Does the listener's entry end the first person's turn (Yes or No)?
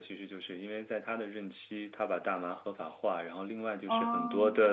No